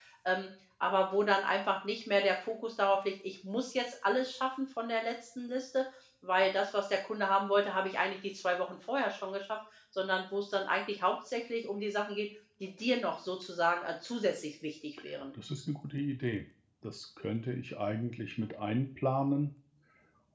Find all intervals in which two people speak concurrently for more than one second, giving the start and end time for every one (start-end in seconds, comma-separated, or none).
none